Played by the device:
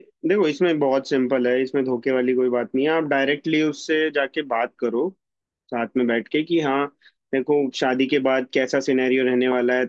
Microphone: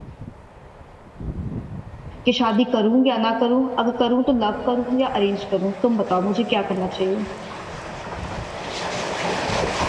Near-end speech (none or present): present